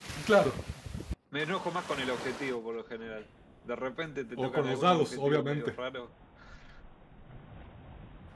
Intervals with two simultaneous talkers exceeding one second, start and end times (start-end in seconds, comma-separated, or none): 4.4-5.8